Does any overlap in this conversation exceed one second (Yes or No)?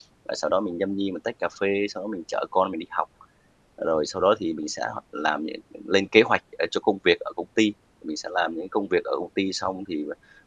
No